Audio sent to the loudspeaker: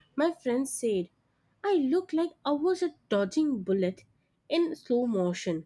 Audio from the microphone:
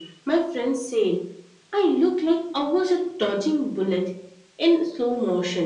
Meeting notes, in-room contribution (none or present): none